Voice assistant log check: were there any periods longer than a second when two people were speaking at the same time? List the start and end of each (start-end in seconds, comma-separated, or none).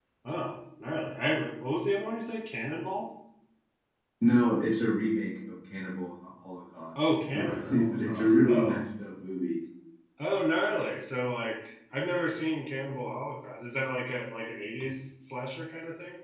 7.2-8.8